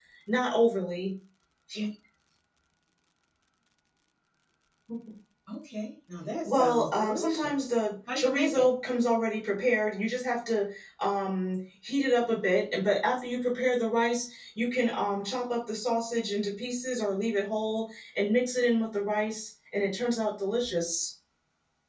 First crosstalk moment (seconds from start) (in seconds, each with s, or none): 6.4 s